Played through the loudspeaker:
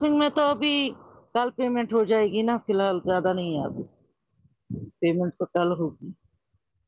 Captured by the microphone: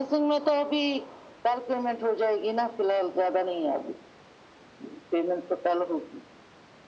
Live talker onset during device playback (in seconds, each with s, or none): none